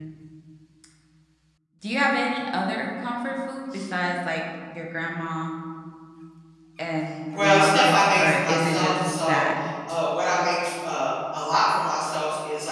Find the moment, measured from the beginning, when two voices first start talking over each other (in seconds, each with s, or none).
7.4 s